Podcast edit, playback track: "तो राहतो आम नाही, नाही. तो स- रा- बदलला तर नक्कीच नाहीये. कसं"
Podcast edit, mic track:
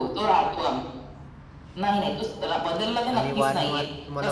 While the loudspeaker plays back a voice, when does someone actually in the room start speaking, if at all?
3.1 s

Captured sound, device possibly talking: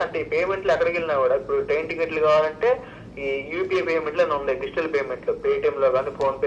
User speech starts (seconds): none

